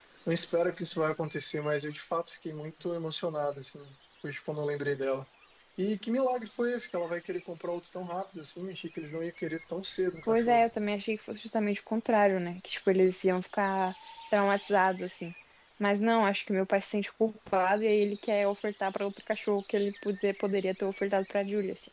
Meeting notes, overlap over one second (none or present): none